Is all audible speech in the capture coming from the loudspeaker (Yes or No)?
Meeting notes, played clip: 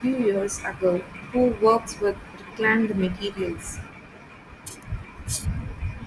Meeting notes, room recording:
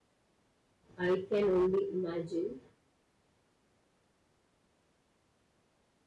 No